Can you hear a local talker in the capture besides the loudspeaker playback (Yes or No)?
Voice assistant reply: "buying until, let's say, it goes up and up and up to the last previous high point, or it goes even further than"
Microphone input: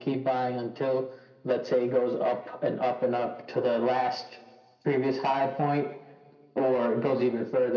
No